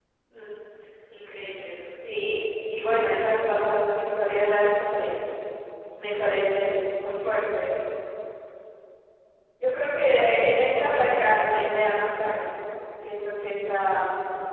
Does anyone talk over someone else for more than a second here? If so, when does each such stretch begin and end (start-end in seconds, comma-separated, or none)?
10.6-11.9